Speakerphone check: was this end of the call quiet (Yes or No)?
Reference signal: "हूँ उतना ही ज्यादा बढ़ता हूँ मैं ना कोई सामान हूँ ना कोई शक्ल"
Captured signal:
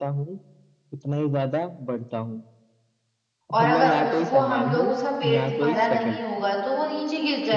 No